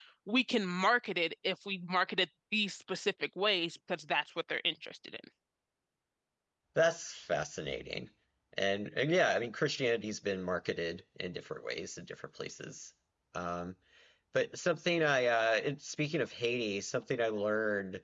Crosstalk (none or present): none